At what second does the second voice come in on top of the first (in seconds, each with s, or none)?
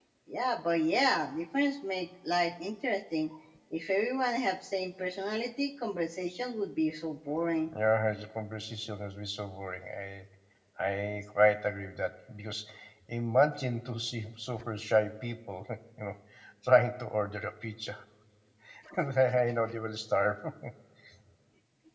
none